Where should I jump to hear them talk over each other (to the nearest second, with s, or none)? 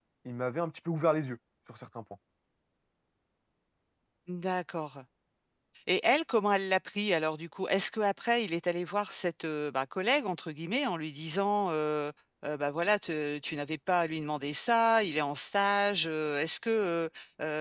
none